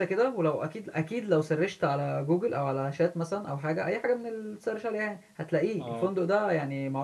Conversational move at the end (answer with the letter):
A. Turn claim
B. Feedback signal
B